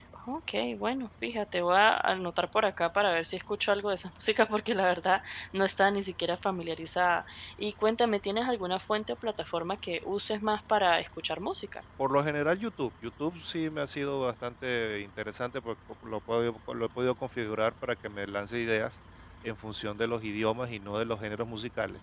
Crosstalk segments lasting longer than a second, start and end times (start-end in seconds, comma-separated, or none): none